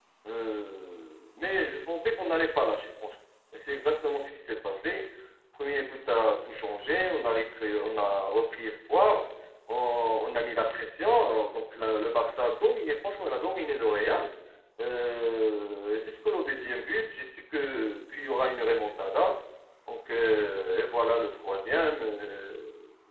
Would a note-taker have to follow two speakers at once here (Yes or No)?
No